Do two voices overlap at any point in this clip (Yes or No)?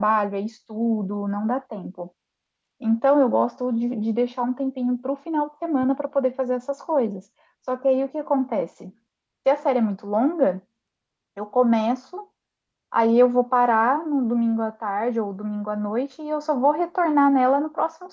No